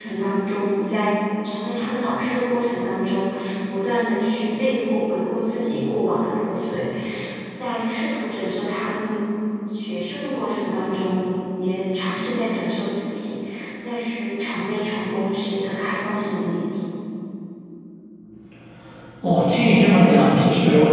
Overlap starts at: none

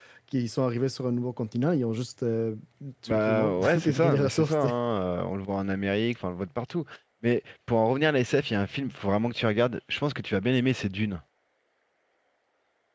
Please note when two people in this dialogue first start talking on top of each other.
3 s

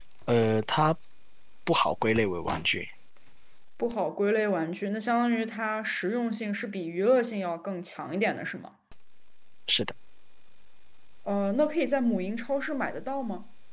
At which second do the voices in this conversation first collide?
none

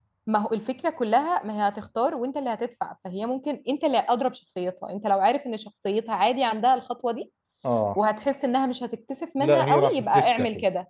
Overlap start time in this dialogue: 9 s

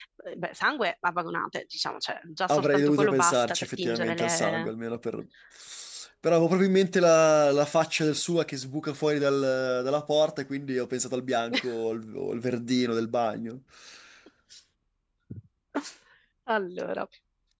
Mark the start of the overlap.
2 s

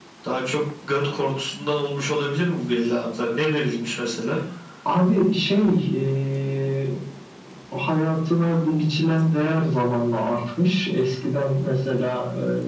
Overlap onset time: none

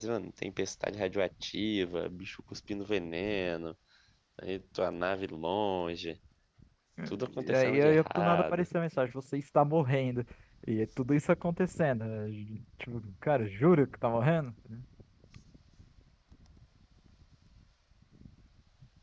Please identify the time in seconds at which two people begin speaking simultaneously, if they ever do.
7 s

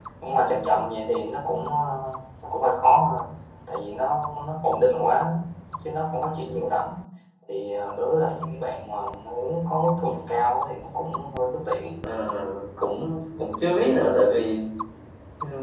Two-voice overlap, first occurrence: none

